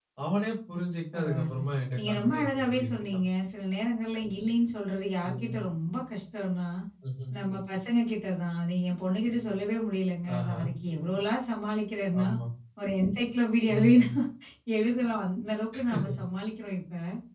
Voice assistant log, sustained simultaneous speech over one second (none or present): present